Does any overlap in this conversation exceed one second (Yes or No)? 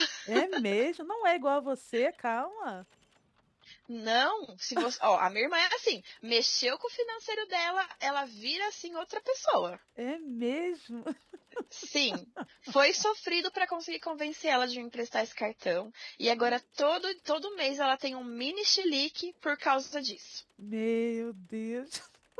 No